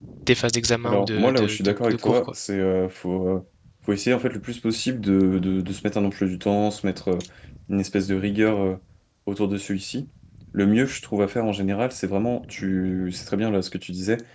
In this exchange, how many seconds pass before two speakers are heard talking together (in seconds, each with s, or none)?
0.8 s